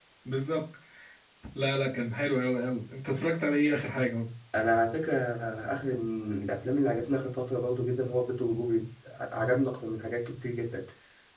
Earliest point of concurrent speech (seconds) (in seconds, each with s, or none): none